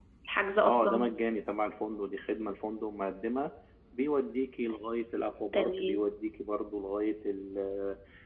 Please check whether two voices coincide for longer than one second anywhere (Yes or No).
No